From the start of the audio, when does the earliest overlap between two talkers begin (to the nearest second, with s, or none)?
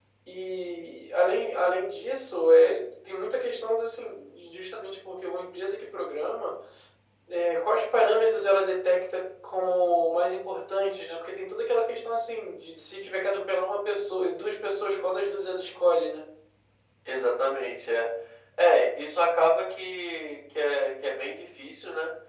none